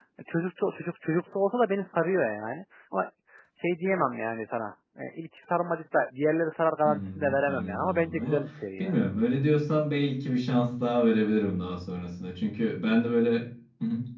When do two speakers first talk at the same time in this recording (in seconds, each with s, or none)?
6.8 s